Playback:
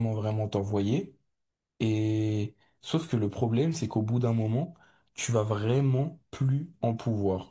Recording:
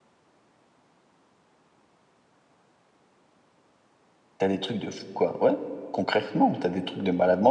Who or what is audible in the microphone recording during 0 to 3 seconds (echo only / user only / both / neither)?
neither